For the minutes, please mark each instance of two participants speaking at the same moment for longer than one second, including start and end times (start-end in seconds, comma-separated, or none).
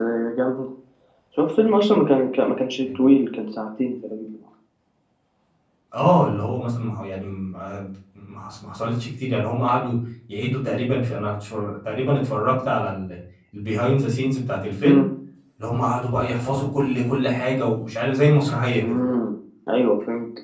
none